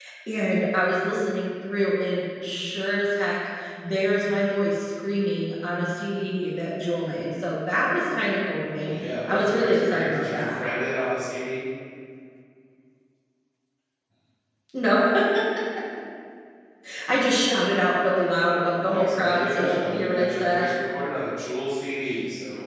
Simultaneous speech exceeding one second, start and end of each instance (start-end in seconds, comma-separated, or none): 8.8-10.6, 18.7-20.7